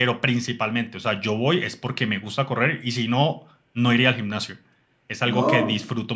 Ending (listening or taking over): listening